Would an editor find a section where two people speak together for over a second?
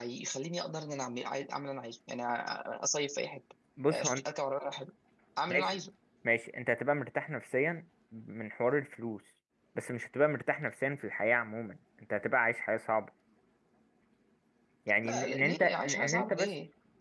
Yes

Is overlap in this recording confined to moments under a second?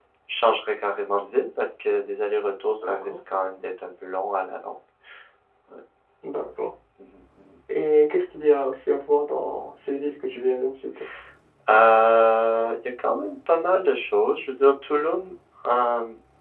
Yes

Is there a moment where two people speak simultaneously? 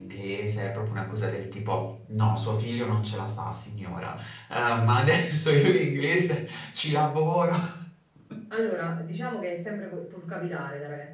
No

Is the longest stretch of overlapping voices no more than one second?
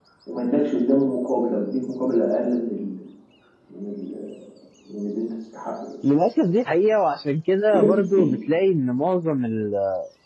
Yes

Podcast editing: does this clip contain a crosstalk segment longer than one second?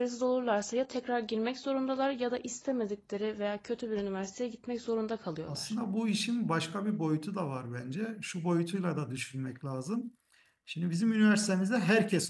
No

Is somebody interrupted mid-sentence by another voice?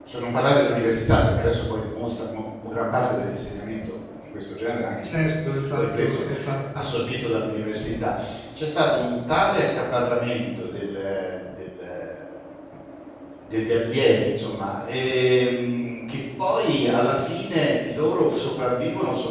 Yes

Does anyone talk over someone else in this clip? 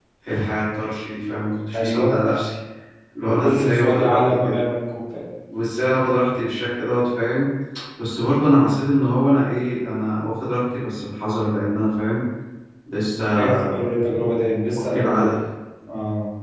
Yes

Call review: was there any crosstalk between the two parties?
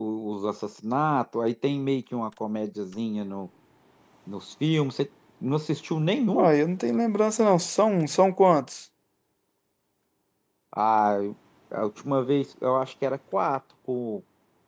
No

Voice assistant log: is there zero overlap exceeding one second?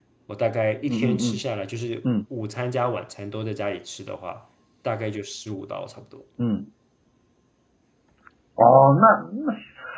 Yes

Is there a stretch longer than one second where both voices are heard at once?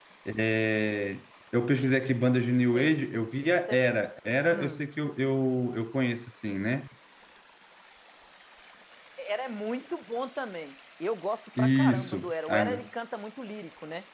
Yes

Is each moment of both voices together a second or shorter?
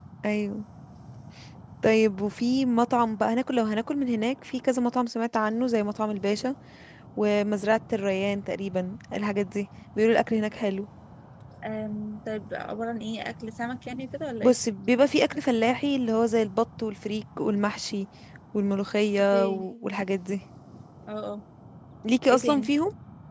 Yes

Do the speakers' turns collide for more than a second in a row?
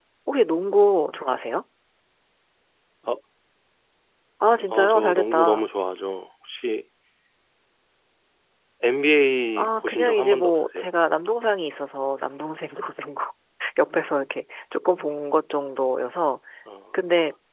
Yes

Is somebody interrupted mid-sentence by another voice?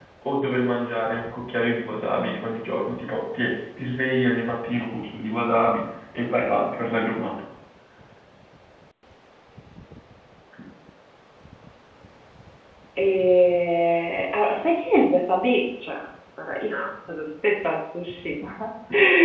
No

